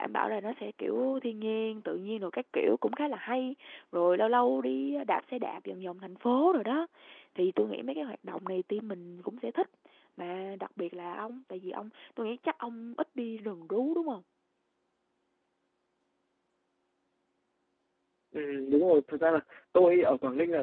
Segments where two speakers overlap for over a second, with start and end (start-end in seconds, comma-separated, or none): none